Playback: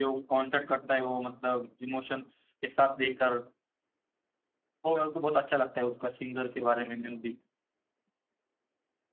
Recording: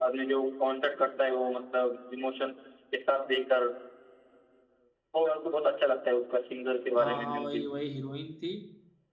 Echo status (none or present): present